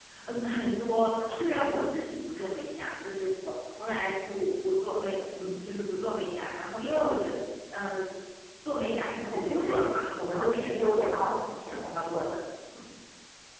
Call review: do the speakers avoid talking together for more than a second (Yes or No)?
No